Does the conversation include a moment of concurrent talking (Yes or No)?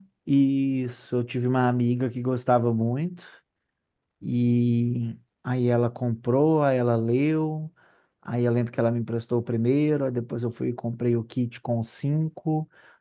No